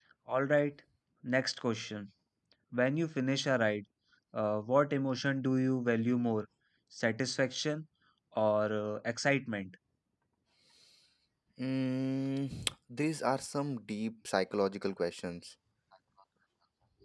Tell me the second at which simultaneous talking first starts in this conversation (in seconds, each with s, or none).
none